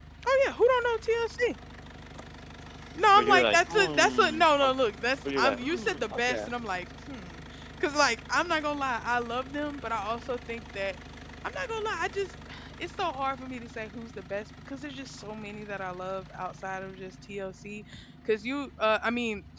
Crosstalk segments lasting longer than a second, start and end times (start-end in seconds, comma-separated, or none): 3.1-4.7, 5.3-6.5